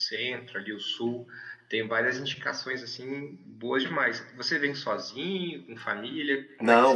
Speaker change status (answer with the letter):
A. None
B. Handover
B